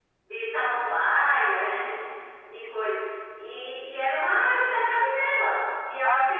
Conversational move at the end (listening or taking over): listening